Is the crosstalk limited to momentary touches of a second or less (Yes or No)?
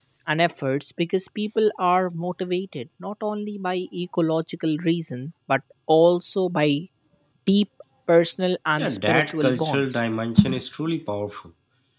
No